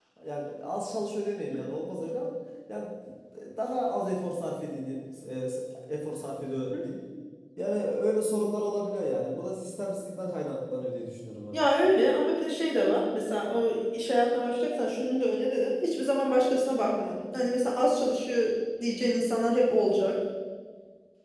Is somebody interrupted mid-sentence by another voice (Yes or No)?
No